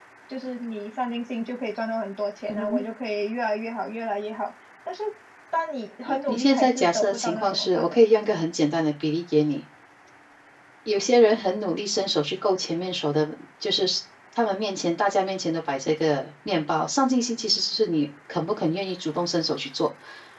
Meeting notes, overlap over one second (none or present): present